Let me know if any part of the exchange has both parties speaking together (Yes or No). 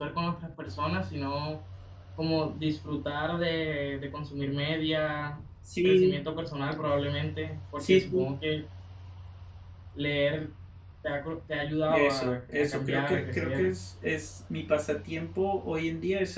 Yes